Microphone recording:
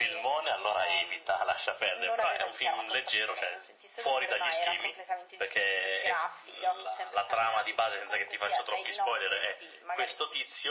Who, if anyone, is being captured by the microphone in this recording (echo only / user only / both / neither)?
echo only